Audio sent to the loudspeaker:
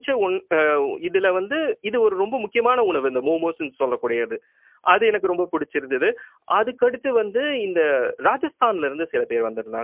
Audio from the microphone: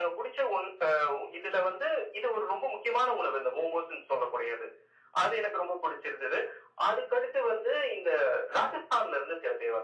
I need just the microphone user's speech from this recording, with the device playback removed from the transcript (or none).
none